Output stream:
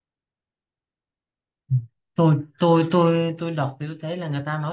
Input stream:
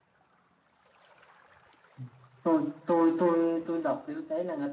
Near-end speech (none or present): none